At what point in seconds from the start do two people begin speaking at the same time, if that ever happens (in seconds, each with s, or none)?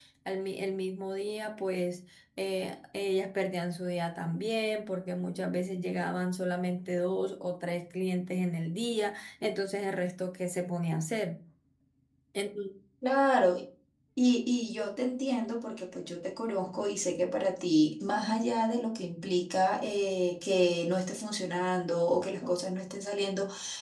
none